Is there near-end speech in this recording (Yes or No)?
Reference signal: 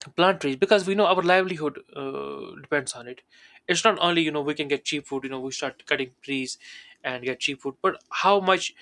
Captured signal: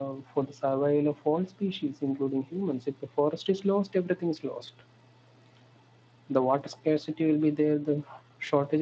Yes